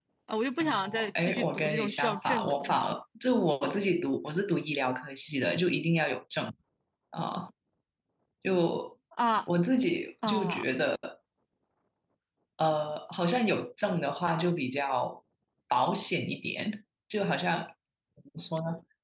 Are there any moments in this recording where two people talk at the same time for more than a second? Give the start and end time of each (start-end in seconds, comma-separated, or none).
0.6-3.0